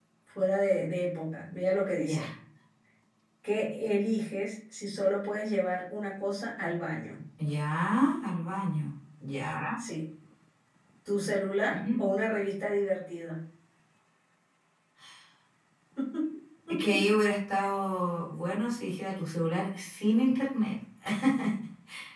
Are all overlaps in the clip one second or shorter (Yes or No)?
Yes